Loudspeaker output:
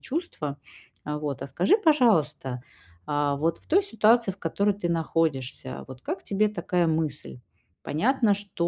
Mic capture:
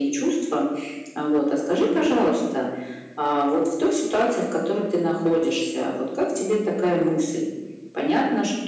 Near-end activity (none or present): none